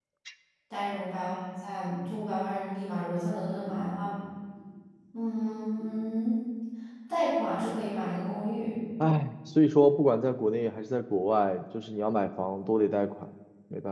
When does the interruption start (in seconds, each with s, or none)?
none